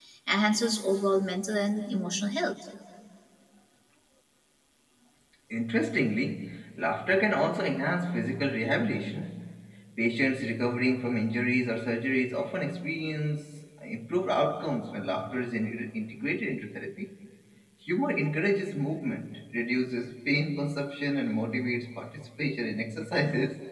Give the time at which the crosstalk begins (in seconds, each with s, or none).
none